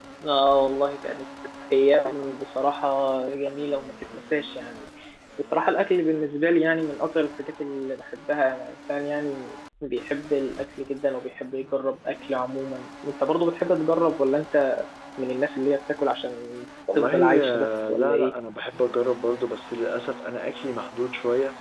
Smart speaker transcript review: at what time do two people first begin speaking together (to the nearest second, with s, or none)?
17 s